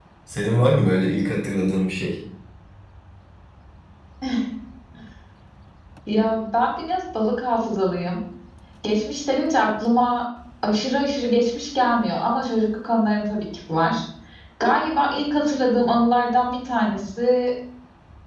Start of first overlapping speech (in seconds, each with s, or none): none